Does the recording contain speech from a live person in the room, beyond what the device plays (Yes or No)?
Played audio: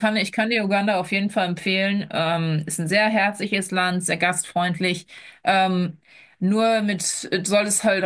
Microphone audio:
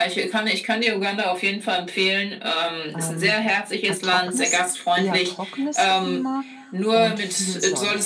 Yes